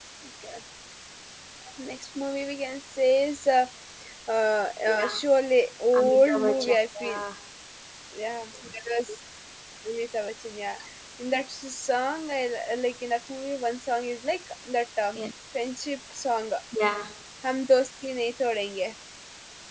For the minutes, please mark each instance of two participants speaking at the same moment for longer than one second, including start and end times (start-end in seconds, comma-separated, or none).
6.0-7.2